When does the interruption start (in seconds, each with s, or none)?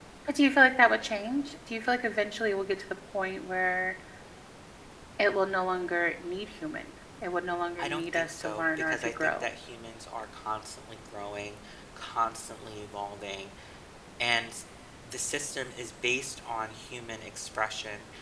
7.8 s